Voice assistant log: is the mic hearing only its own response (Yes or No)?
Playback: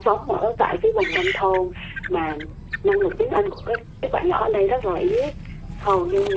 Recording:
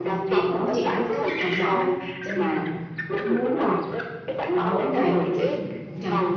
No